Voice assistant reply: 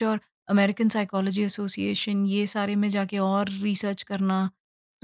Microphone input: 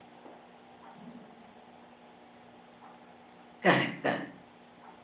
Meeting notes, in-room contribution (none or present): present